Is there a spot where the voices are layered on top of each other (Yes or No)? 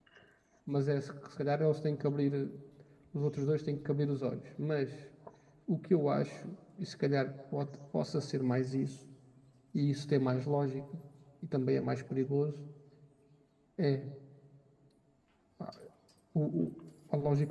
No